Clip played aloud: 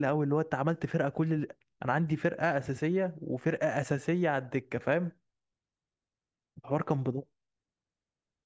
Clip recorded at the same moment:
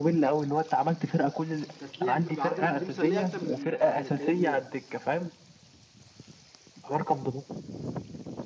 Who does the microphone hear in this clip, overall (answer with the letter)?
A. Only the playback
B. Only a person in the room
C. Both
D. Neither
C